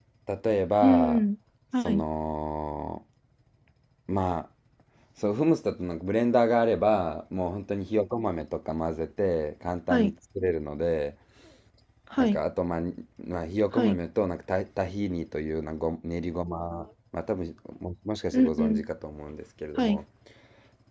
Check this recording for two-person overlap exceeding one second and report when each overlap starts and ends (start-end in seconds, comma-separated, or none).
none